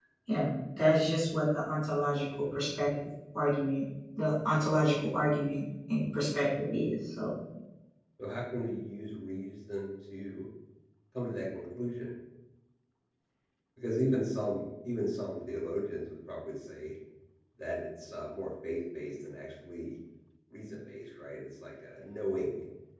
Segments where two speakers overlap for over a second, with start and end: none

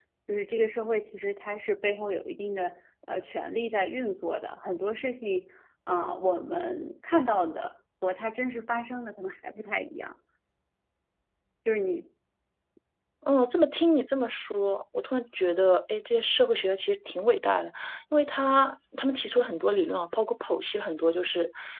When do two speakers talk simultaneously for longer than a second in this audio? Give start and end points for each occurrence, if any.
none

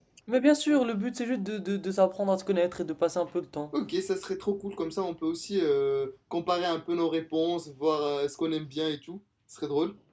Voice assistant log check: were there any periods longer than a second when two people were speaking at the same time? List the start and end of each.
none

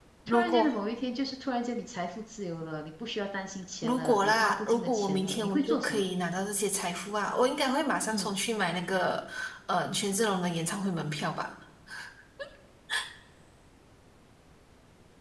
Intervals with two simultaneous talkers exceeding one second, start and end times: 3.8-6.1

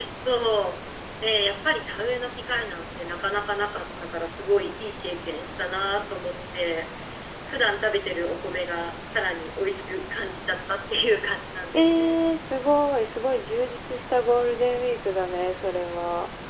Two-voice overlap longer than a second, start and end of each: none

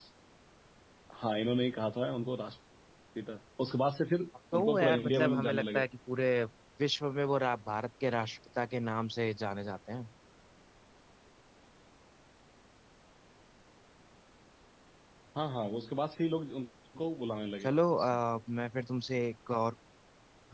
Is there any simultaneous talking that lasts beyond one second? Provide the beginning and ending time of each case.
4.5-5.8

